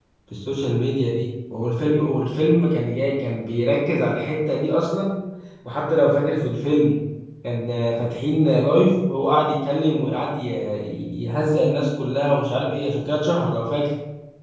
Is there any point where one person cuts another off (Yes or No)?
No